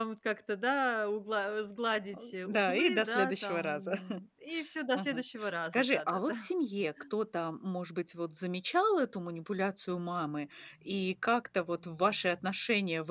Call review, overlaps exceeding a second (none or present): present